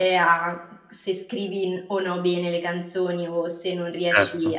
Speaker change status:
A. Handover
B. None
B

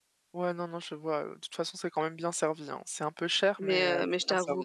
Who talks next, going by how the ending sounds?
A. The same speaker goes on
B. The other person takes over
B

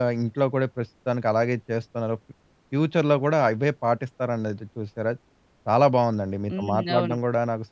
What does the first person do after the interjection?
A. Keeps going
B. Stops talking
A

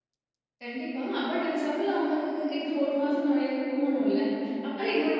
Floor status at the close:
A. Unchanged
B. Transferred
A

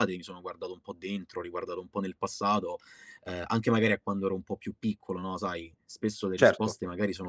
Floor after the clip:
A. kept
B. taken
A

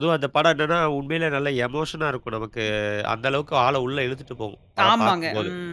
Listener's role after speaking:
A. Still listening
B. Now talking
B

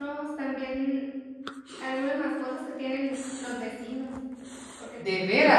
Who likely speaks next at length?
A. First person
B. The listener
A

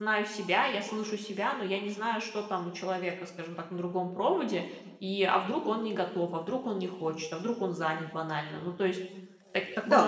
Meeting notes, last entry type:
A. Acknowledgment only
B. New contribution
B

